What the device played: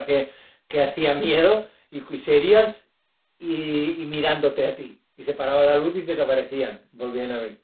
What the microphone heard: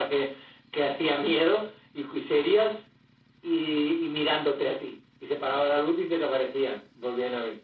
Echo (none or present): present